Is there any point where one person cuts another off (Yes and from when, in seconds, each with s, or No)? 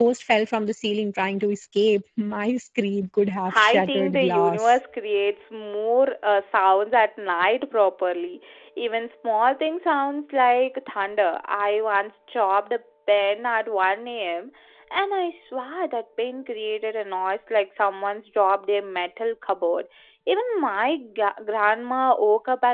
Yes, from 3.5 s